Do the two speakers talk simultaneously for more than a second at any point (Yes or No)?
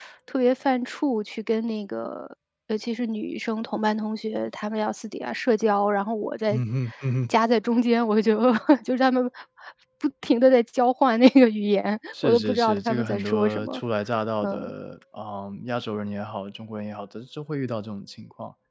Yes